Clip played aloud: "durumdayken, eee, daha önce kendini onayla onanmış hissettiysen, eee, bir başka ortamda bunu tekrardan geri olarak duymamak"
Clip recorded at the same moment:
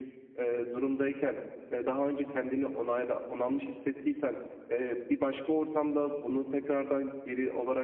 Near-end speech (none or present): none